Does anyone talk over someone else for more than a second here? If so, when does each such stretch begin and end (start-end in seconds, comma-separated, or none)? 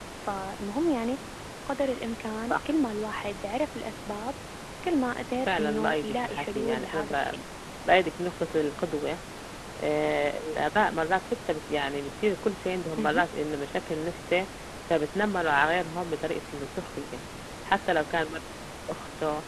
5.5-7.4